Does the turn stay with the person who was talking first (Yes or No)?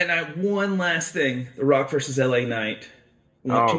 No